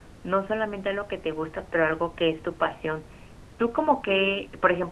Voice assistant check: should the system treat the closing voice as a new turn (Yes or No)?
No